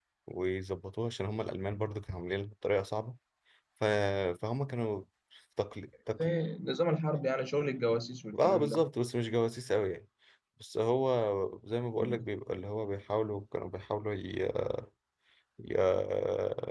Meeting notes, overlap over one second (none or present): none